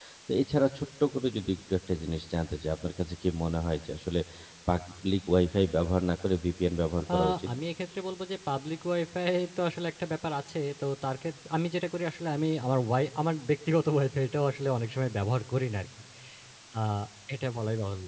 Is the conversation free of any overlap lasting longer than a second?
Yes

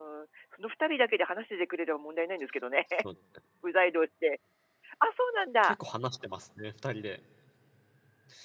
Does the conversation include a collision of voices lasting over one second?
No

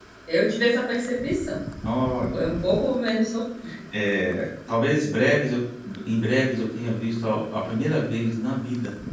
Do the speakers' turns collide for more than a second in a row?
No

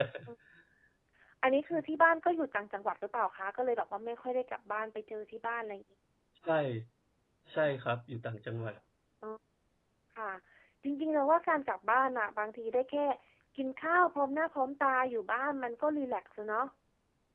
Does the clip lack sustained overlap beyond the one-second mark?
Yes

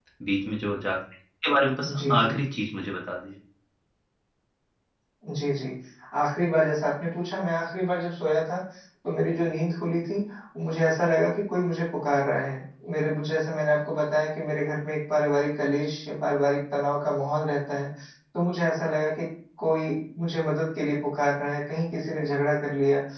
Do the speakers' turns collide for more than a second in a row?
No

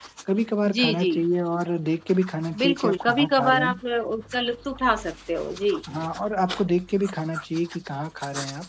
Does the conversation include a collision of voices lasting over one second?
Yes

